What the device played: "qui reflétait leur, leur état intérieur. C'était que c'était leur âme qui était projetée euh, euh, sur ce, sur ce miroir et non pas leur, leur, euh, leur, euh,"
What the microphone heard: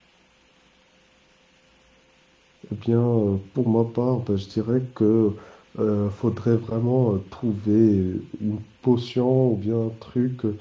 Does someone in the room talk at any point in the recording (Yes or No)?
Yes